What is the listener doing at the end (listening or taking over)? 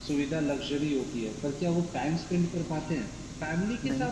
listening